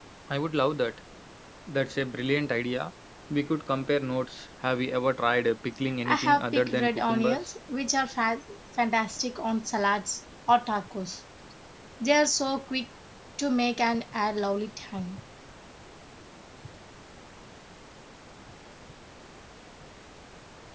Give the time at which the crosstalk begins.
6.0 s

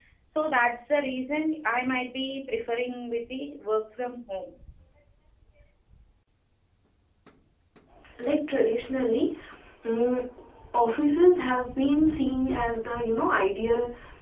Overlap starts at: none

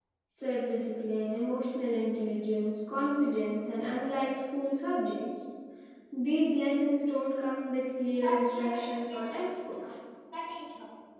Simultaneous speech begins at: 8.1 s

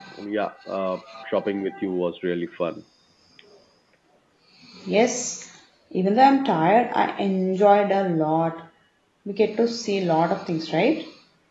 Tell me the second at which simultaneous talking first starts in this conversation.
none

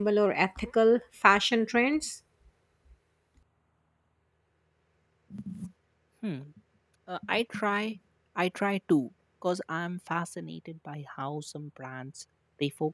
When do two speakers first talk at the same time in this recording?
none

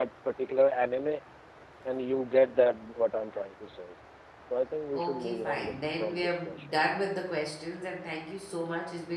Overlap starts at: 4.9 s

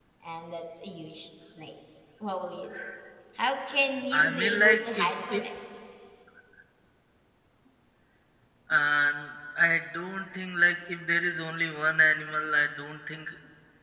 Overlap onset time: 4.1 s

